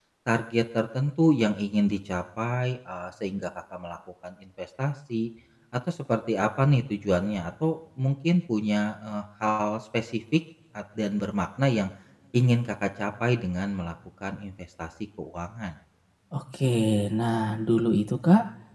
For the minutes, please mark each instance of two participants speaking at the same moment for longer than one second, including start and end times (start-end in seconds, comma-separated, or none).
none